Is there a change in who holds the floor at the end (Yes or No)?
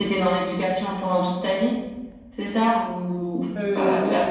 Yes